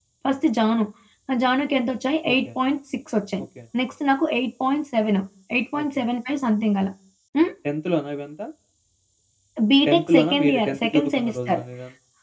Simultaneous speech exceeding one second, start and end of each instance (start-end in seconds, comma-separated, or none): 9.9-11.6